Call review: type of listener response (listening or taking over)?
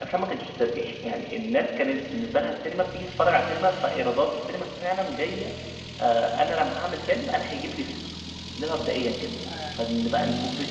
listening